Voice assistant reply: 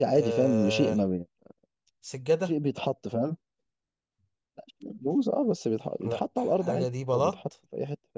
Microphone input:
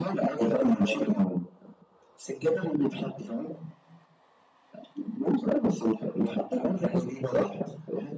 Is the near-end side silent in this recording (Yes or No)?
Yes